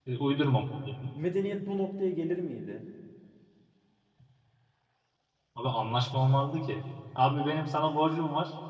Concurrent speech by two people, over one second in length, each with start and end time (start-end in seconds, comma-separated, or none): none